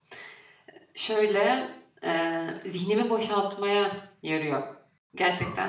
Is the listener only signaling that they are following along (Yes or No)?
No